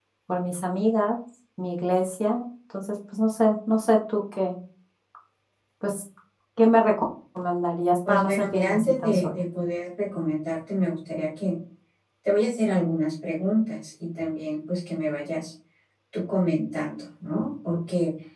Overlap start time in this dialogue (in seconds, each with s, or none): 8.0 s